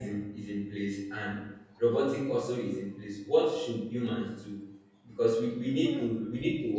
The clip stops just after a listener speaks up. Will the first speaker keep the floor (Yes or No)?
Yes